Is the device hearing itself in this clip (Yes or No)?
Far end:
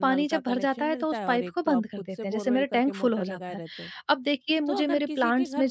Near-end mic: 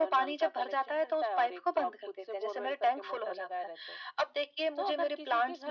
Yes